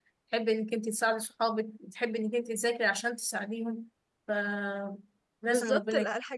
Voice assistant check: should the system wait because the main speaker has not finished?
No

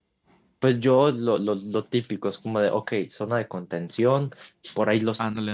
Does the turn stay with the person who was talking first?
Yes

